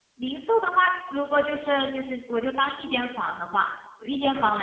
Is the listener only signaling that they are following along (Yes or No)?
Yes